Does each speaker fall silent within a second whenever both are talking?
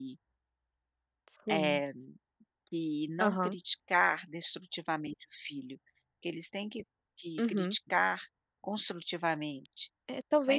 Yes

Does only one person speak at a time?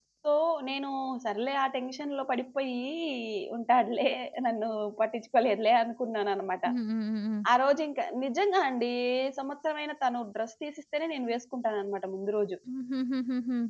Yes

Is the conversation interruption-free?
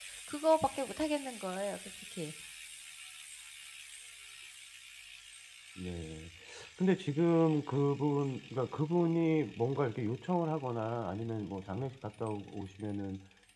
Yes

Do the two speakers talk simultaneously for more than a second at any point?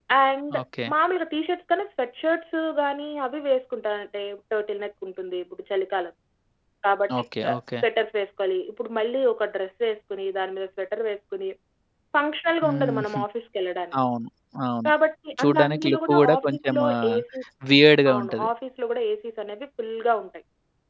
Yes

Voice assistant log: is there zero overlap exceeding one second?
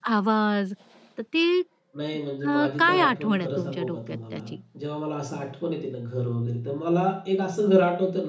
No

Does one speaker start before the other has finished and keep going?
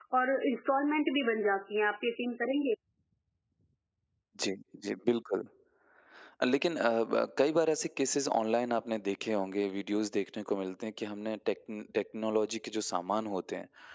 No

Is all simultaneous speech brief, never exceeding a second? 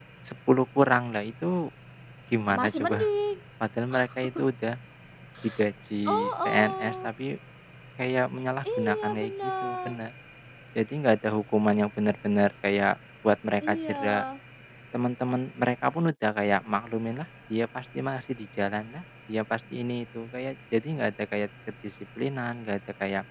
No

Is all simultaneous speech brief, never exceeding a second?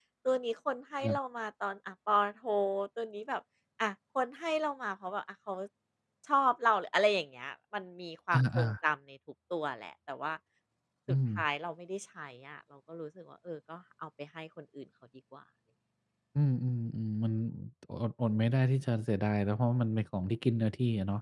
Yes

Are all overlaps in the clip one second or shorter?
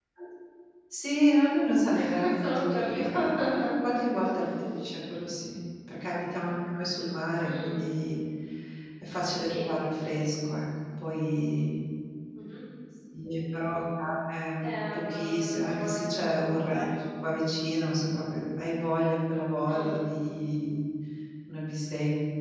No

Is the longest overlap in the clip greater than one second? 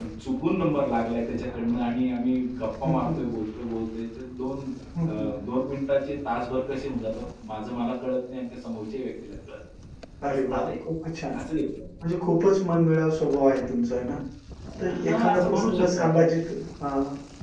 Yes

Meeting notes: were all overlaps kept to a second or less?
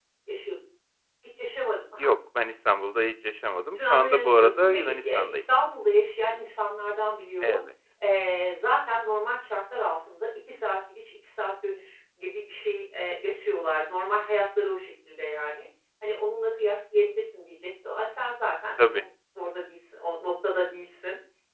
No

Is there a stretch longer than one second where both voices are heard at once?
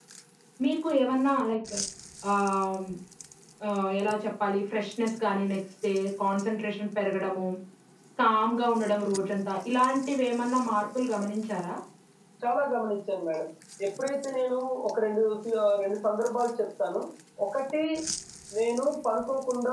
No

